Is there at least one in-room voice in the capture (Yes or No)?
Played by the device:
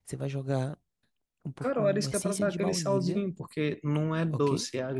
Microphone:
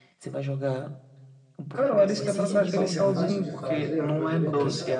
Yes